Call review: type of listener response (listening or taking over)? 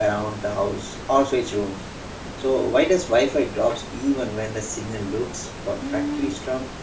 taking over